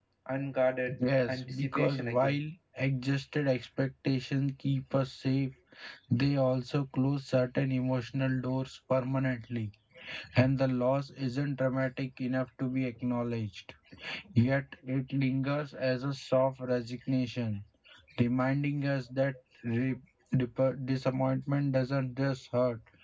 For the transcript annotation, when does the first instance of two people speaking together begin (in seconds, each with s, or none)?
1.0 s